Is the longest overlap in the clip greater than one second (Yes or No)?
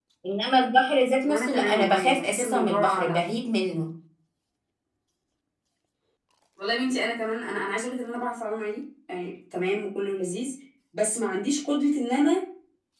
Yes